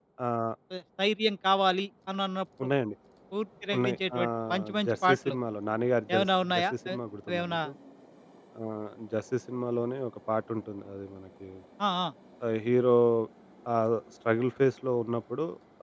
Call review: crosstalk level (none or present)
present